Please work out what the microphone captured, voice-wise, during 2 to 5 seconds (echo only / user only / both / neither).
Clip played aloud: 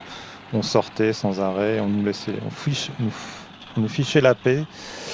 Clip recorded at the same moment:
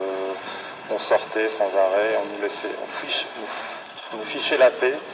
echo only